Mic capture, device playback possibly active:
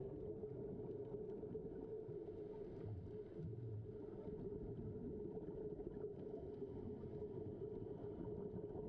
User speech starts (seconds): none

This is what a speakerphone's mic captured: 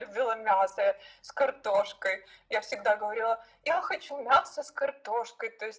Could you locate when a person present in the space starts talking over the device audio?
none

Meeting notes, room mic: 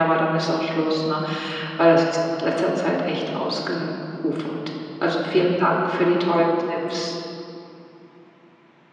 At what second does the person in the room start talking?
none

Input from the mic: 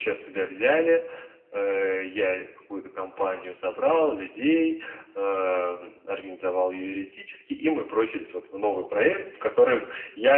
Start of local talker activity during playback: none

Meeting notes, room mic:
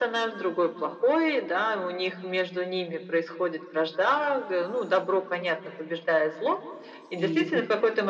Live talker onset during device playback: 7 s

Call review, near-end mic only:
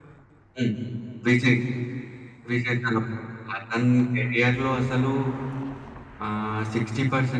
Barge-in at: none

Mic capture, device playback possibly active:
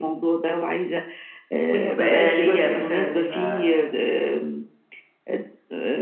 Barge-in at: 2 s

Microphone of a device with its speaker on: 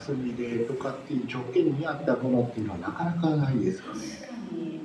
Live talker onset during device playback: 4 s

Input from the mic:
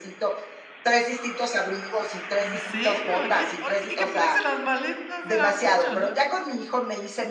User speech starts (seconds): 2 s

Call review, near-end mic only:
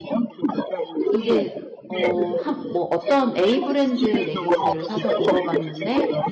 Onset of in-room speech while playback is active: 1 s

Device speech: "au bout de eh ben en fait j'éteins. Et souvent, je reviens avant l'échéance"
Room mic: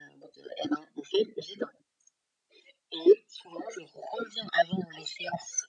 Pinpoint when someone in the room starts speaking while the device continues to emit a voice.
none

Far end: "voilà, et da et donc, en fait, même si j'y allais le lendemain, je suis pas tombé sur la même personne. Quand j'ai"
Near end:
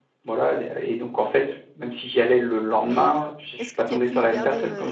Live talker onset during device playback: 3 s

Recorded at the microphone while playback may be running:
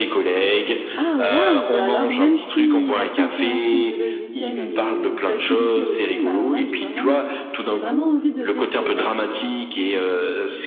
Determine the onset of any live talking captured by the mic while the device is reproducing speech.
1 s

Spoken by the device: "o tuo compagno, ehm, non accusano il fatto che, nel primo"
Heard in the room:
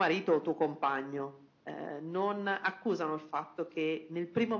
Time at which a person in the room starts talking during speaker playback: none

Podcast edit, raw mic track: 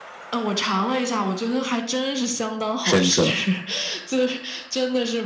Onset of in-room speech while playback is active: 3 s

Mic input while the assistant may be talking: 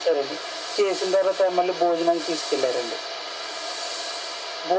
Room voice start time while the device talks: none

